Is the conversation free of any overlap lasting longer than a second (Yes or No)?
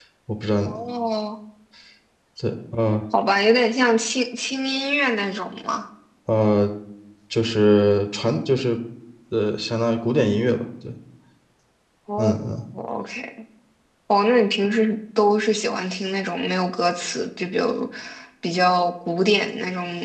Yes